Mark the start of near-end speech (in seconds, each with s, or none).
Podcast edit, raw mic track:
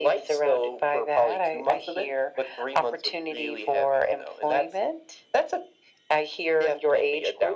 none